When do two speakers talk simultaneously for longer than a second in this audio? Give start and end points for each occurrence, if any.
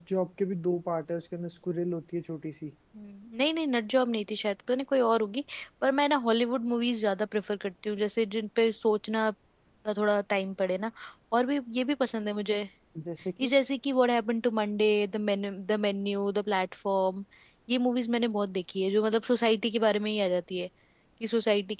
none

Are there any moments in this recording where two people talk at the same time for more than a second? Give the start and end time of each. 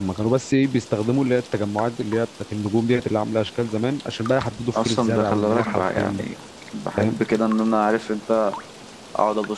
4.7-6.2

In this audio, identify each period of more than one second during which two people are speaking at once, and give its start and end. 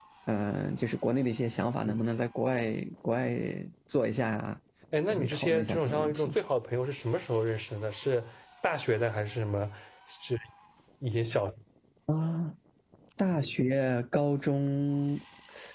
5.1-6.3

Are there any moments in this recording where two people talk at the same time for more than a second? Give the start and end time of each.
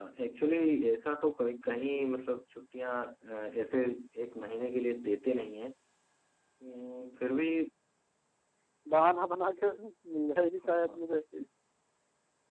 none

